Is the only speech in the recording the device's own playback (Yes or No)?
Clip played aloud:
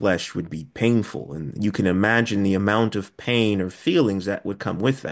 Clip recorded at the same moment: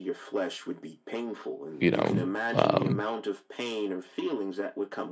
No